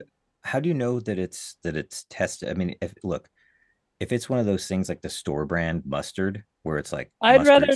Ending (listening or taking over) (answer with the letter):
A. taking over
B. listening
A